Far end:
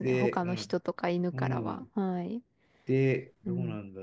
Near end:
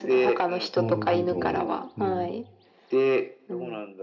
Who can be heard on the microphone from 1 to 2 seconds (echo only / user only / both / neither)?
both